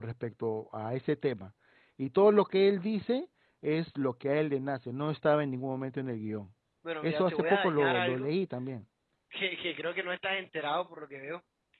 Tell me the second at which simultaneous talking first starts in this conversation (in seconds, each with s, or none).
7.0 s